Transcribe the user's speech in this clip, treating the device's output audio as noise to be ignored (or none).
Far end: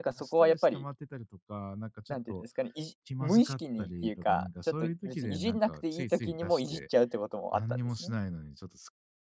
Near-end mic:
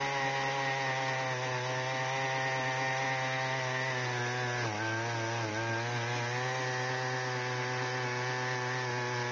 none